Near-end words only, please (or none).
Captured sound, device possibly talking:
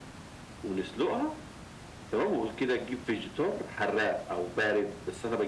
none